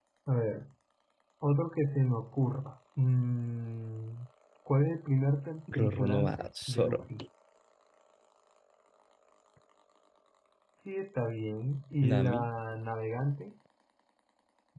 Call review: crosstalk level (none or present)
present